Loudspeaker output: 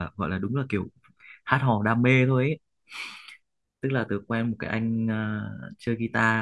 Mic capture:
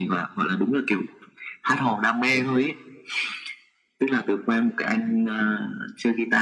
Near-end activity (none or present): none